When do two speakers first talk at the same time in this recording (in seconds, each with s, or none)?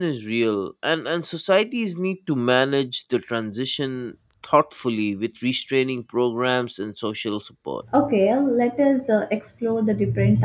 none